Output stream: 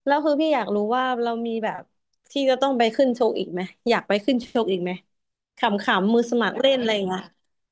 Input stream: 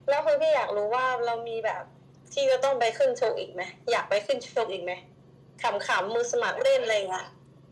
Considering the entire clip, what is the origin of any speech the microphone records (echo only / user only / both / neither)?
echo only